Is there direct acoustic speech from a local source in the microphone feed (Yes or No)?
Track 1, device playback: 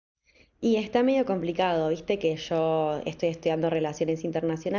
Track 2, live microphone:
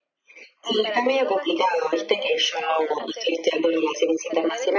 Yes